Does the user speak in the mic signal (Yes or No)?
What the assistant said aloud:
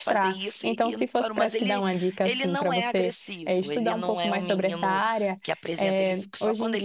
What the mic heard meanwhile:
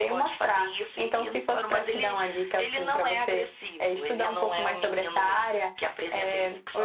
No